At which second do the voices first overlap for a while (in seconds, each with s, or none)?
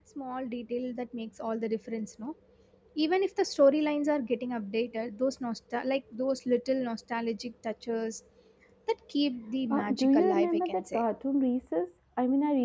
9.7 s